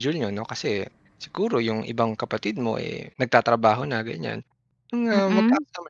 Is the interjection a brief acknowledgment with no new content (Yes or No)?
Yes